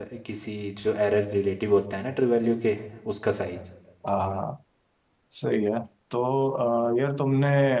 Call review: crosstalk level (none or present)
none